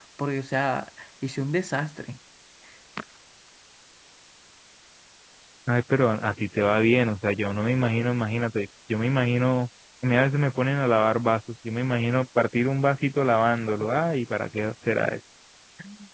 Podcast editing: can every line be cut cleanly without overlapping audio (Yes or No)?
Yes